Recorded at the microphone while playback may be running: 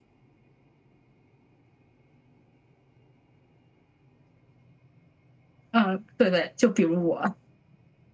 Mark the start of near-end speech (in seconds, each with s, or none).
5.7 s